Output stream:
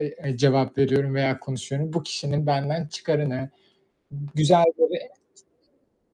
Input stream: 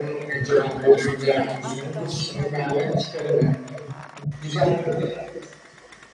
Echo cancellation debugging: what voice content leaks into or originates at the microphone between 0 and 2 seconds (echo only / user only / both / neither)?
both